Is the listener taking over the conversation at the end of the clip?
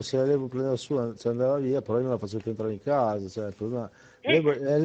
No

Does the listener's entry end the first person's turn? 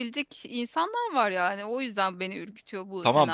Yes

